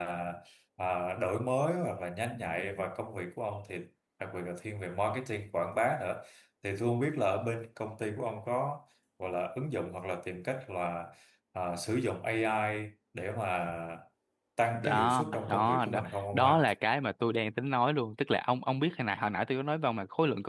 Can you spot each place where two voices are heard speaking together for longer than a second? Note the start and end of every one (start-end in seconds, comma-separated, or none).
14.8-16.7